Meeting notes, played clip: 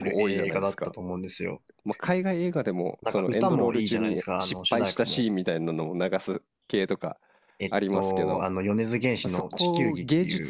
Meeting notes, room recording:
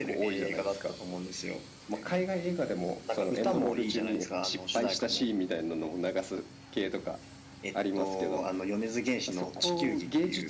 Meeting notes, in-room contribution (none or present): none